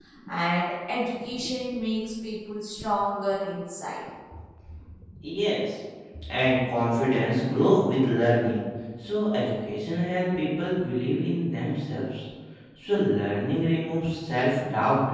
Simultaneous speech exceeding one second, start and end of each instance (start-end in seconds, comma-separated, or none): none